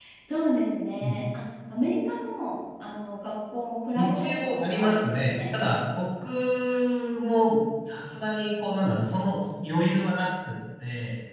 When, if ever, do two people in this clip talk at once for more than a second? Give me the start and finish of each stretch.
4.0-5.4

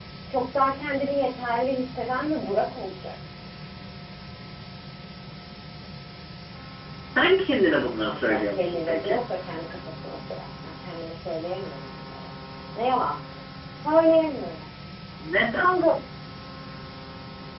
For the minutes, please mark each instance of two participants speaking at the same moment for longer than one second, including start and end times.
7.6-9.2

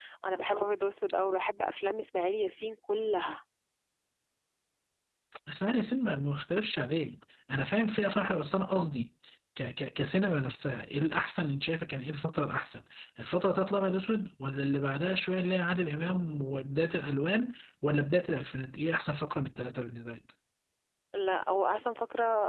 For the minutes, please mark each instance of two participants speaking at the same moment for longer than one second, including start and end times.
none

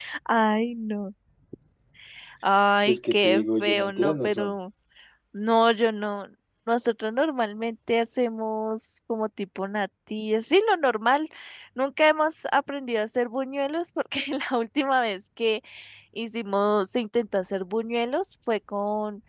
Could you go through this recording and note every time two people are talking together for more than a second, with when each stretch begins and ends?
2.9-4.5

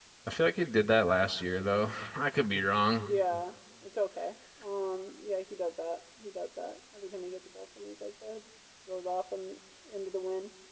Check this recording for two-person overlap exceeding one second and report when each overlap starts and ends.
none

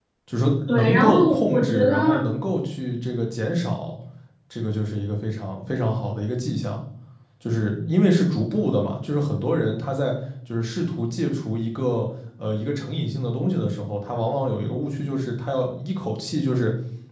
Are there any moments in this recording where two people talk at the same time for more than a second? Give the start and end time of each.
0.7-2.2

